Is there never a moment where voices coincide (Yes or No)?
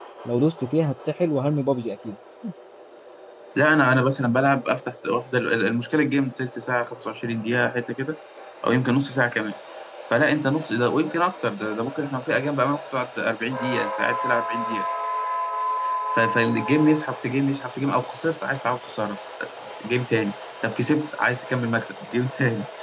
Yes